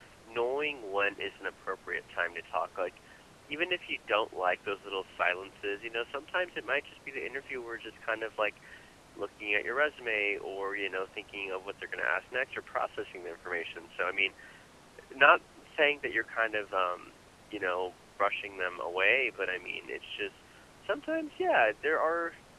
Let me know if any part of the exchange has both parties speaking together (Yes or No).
No